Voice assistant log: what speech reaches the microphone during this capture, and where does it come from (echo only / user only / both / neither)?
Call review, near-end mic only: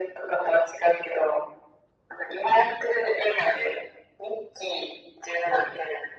echo only